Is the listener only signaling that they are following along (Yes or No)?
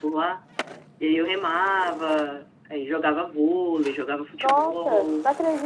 No